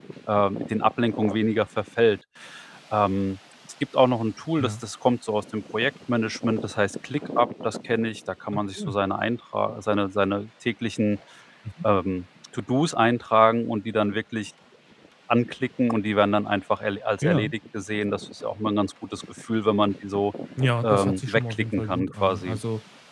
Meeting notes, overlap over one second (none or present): present